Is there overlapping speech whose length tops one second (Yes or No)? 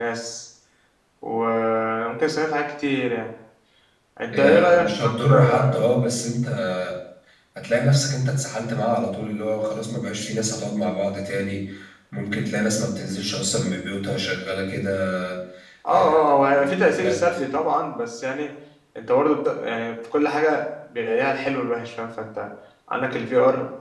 Yes